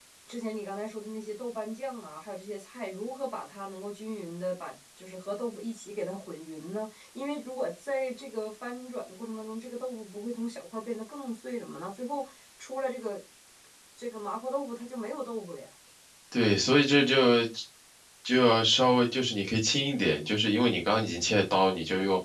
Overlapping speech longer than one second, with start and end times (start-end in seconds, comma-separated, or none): none